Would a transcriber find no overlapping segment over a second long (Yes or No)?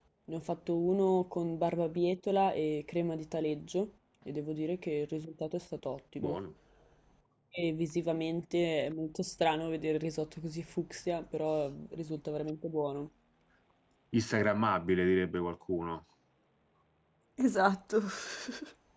Yes